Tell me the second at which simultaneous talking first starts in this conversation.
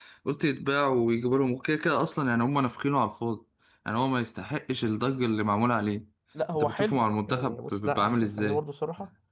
7 s

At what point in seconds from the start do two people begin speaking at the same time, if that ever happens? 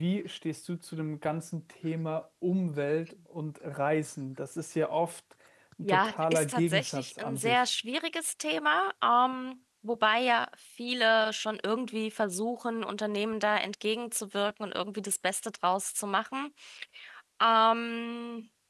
6 s

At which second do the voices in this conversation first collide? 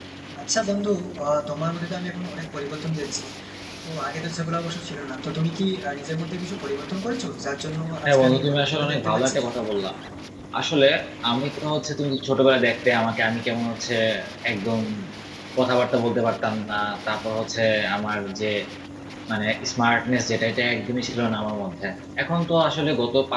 8 s

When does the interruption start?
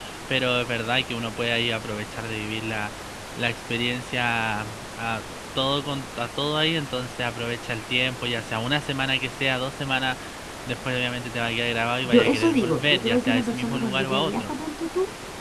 12 s

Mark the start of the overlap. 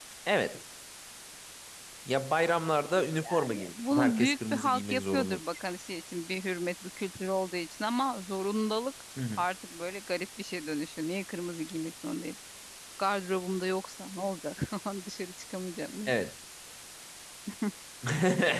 3 s

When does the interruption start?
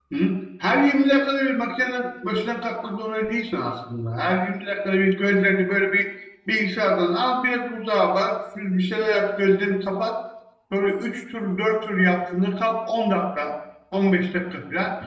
none

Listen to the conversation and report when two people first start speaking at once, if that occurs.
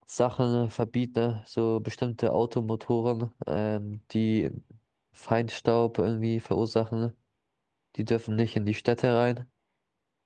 none

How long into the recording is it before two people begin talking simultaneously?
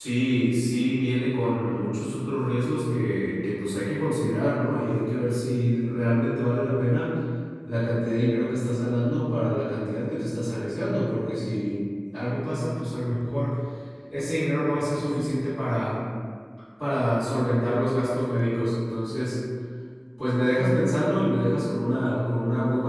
none

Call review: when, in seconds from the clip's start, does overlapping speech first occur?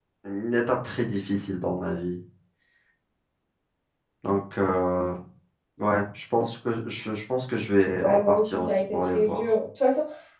8 s

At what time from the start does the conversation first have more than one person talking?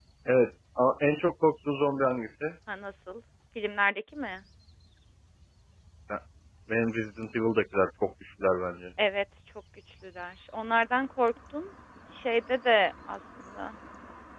none

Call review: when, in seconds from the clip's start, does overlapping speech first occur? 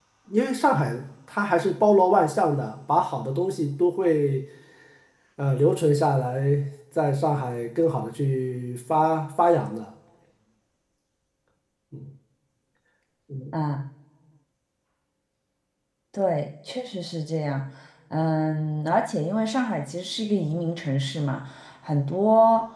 none

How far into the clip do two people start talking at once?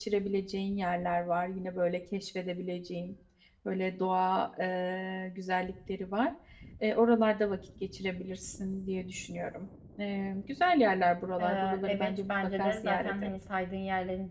11 s

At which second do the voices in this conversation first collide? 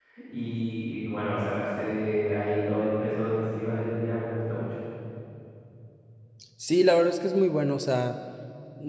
none

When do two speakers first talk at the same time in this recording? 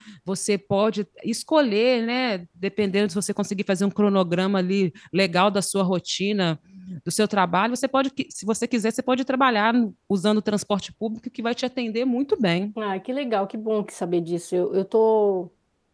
none

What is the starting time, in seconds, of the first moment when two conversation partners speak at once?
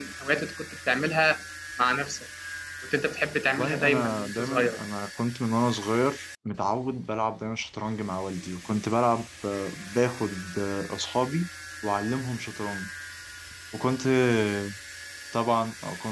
4 s

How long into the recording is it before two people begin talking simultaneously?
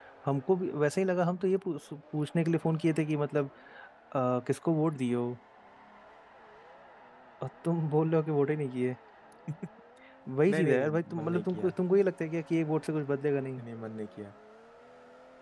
10 s

